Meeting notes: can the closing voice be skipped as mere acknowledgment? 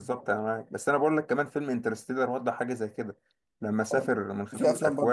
No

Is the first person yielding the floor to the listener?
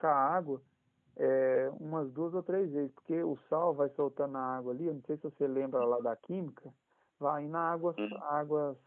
No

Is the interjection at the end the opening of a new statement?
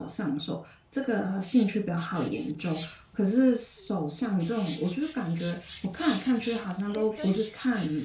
No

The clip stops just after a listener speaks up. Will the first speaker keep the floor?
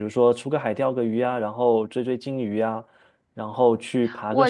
No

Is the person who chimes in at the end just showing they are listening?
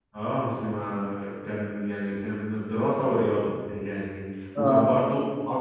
Yes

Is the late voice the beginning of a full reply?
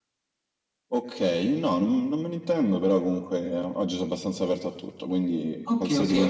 Yes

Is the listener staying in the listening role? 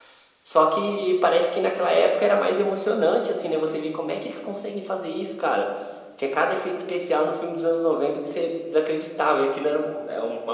Yes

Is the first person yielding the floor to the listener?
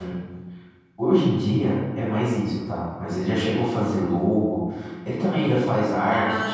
No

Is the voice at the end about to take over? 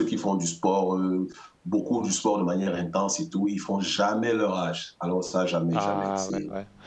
Yes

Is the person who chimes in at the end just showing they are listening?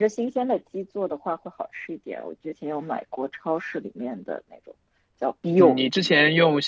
No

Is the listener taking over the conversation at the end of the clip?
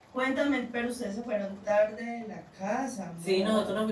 Yes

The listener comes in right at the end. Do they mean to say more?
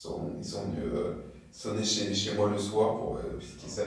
No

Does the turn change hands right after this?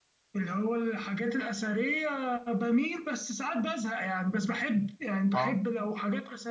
No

